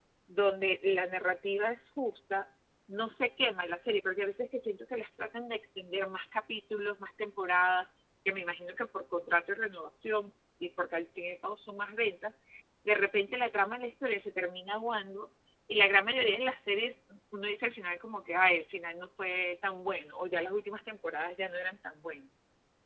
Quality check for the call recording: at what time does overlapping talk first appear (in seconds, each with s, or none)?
none